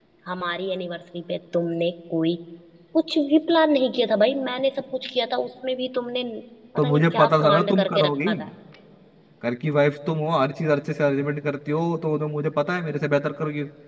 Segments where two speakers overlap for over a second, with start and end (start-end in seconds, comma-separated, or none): 6.8-8.3